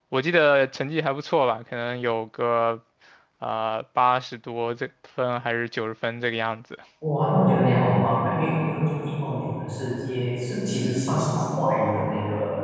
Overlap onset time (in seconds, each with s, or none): none